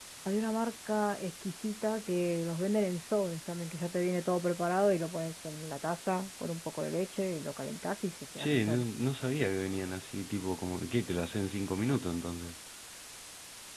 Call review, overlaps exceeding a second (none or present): none